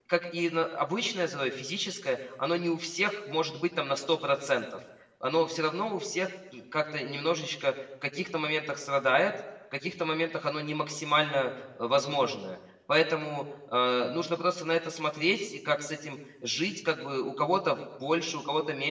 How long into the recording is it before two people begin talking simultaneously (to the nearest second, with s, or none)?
none